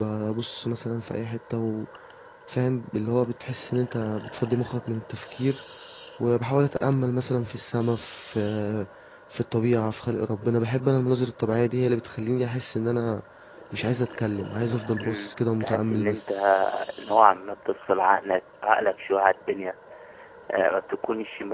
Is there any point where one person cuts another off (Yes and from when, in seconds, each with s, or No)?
Yes, from 15.0 s